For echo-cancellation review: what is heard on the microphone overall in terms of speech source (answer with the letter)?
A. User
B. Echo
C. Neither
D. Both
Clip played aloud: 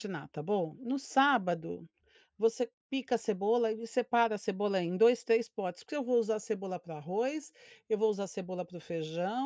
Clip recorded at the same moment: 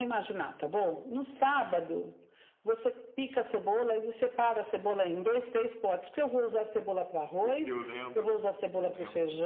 D